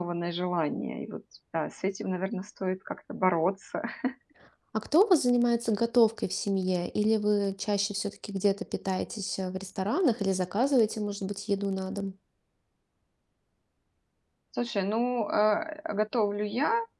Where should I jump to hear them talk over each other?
none

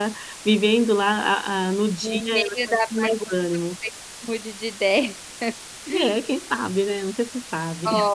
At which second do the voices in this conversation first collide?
2.0 s

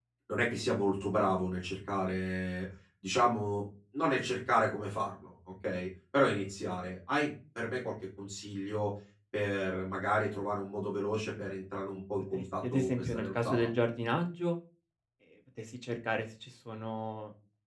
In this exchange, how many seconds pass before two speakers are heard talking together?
12.3 s

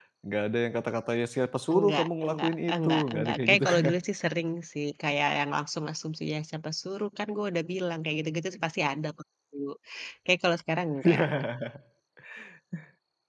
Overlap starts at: 1.7 s

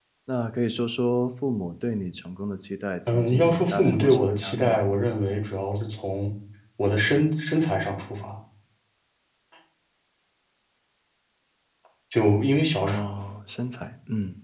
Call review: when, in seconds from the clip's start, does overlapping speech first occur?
3.1 s

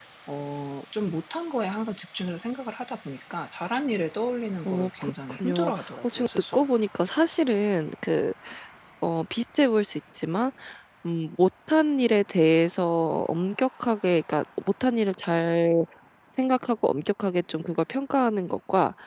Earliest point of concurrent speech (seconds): 4.7 s

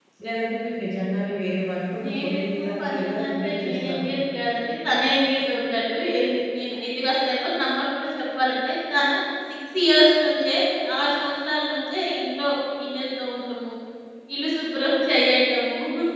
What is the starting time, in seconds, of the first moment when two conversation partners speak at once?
2.0 s

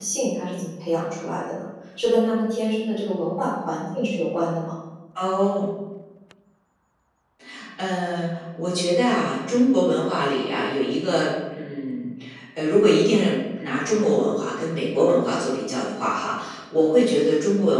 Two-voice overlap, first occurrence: none

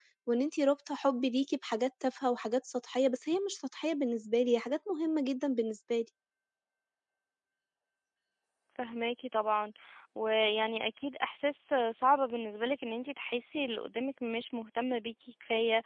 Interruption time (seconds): none

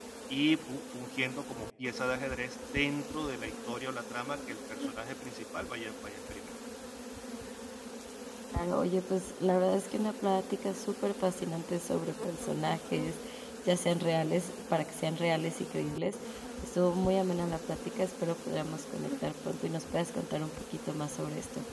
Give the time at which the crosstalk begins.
none

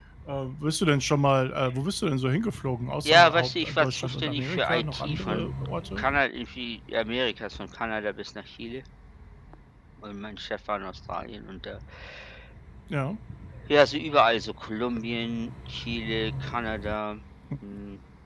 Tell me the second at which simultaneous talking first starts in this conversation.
3.0 s

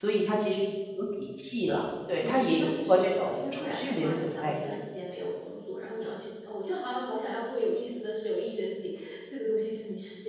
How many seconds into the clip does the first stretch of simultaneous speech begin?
2.2 s

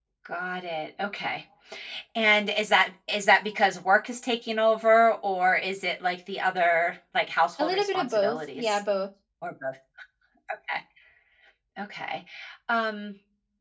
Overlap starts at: 7.6 s

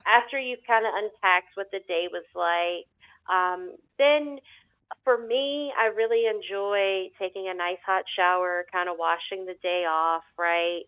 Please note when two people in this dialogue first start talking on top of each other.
none

